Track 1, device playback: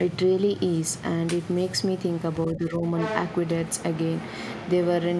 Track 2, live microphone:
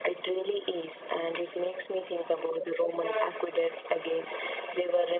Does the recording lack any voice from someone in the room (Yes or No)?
Yes